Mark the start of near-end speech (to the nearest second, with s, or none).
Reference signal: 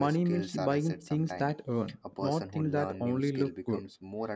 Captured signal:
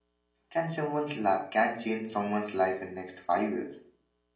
0 s